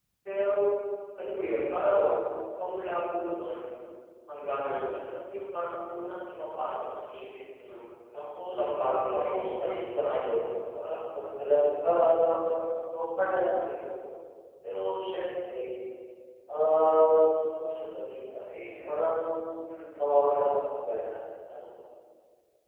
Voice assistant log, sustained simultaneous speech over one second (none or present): present